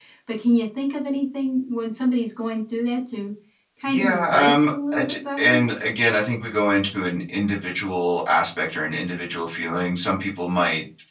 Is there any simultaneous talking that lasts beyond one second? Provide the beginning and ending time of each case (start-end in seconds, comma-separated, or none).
3.9-5.6